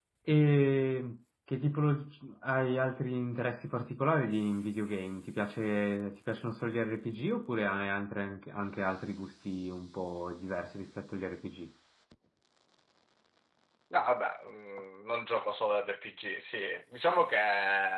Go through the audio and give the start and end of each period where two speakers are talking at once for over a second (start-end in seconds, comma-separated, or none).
none